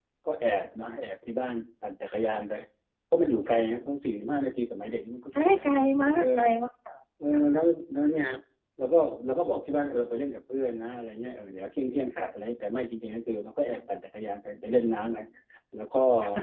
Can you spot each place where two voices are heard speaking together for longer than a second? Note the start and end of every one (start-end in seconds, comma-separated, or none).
none